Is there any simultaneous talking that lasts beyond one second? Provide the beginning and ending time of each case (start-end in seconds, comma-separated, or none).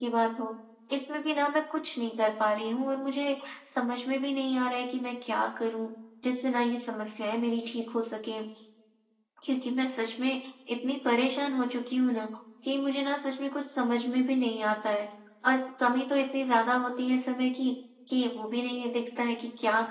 none